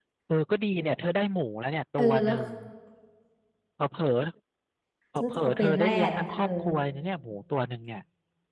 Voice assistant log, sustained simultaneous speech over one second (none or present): present